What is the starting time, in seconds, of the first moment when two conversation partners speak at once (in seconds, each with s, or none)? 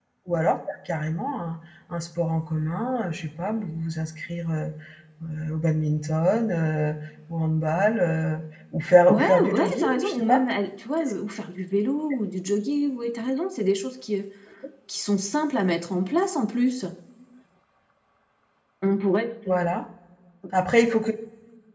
9.1 s